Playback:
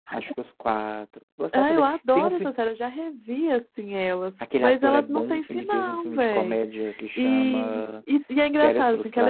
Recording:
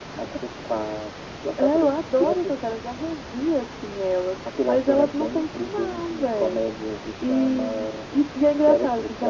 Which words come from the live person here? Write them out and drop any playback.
none

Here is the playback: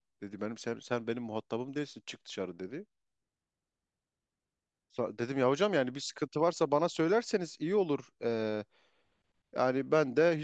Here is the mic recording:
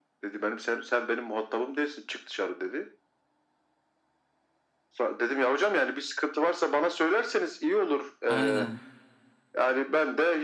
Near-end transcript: Aynen.

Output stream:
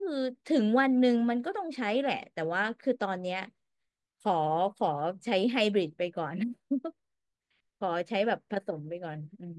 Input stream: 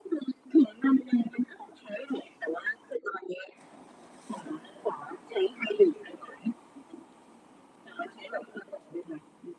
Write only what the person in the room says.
none

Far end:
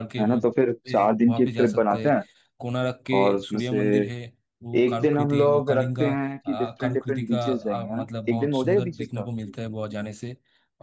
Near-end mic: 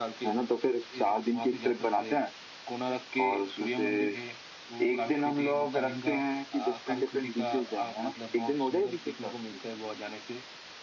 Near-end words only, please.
none

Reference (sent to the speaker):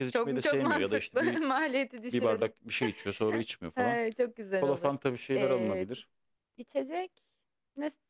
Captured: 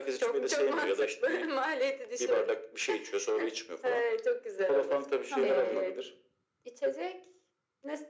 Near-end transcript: tamam.

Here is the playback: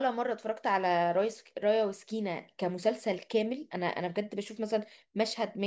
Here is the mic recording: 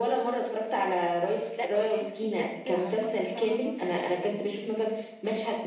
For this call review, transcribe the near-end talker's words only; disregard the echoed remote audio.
لا وتحسي بجد حركات فاهمه اللي هو في ايه بجد

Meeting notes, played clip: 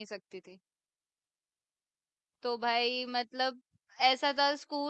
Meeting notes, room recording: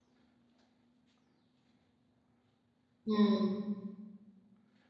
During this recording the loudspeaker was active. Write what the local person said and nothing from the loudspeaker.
हम्म

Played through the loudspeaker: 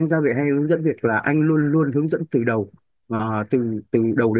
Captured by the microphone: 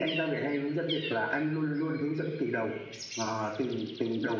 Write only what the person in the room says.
none

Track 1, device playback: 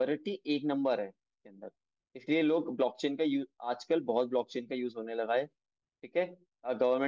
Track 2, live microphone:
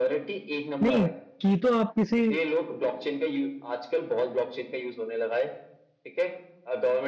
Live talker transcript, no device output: नहीं की तो आप किसी

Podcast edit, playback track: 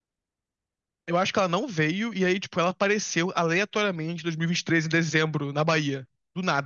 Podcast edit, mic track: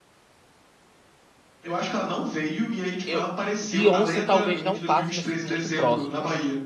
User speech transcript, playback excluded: Eu, Beyoncé talvez não passe, mas fique muito próximo.

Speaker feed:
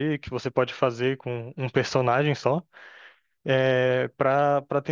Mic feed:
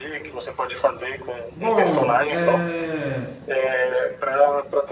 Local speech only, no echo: Bom, é,

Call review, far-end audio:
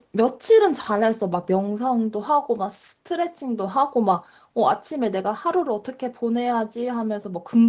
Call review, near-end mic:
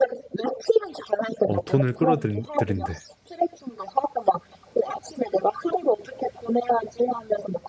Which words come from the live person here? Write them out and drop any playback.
어, 돈을 끌어들인대.

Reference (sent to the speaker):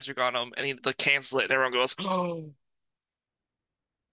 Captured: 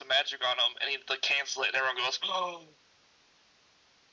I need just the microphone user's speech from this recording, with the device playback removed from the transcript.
none

